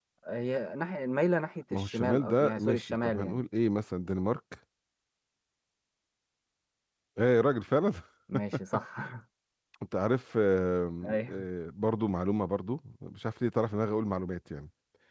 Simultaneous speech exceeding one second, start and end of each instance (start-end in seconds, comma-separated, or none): 1.7-3.4